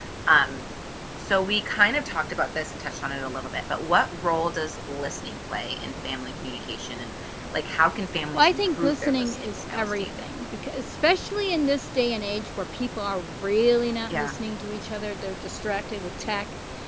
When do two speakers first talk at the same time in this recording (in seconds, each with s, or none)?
8.3 s